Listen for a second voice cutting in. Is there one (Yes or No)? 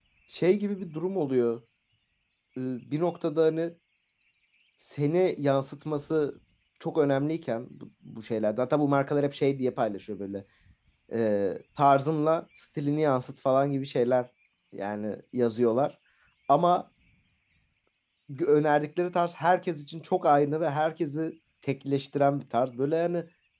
No